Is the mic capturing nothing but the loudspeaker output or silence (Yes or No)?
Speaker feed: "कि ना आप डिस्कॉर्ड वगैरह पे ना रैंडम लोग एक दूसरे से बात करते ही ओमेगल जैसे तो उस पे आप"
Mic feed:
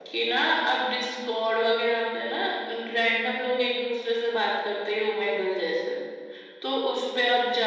Yes